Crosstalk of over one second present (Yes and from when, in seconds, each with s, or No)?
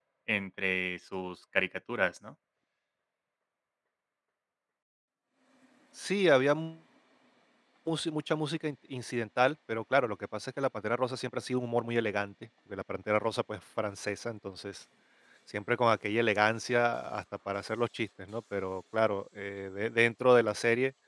No